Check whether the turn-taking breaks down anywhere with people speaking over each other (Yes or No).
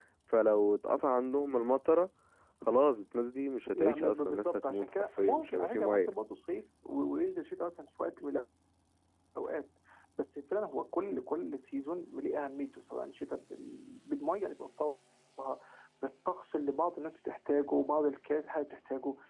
Yes